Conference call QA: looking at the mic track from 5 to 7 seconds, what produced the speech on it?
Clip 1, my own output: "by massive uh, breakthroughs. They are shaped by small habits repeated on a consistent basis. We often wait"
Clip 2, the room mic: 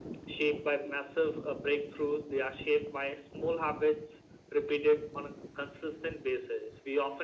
echo only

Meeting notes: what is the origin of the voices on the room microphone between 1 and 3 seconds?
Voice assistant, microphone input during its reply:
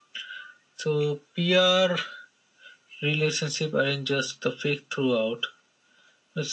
echo only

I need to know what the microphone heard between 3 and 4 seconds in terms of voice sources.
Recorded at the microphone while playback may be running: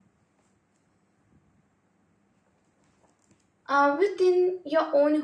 user only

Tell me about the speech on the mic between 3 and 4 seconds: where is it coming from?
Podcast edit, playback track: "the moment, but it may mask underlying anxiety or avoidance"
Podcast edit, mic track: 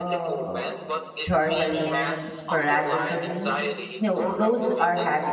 both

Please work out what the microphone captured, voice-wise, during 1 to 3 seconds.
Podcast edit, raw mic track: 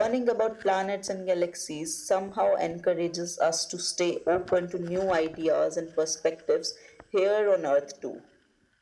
echo only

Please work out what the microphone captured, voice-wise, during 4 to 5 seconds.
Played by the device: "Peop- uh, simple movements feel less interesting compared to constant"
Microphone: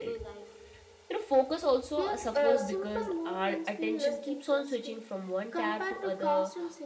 both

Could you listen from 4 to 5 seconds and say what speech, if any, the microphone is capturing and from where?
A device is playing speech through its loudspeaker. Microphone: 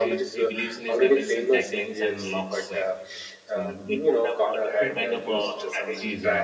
both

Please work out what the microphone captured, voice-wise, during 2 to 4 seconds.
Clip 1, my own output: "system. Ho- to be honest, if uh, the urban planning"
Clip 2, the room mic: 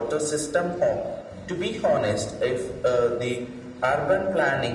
echo only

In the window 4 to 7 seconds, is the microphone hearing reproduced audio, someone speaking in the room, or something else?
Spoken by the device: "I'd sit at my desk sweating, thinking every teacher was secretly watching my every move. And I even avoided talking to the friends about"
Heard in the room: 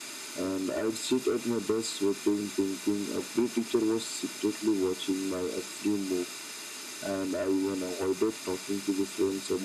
echo only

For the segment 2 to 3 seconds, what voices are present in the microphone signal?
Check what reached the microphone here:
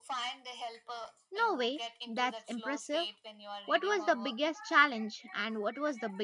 both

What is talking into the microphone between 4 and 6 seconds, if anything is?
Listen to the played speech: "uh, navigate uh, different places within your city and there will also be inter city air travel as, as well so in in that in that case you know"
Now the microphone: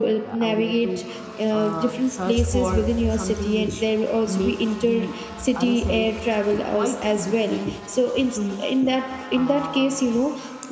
both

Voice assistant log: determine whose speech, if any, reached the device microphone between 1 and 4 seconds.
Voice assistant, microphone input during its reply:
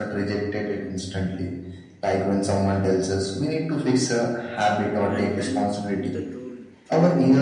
echo only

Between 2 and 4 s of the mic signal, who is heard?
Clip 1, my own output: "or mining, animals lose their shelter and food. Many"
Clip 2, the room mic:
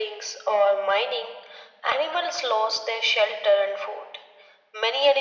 echo only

